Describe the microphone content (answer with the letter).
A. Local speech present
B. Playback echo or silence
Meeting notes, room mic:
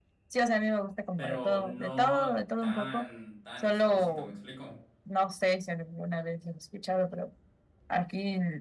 A